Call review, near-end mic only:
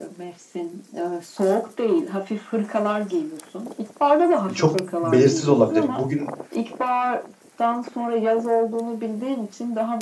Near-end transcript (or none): çok belirsiz olabilir. Bugün